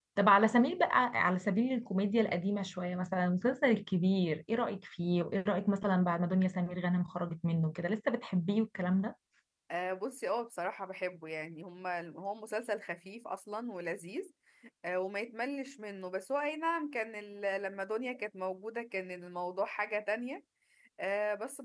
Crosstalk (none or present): none